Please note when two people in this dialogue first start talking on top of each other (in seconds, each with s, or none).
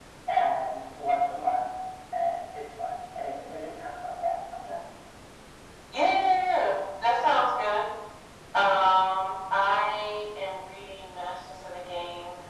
none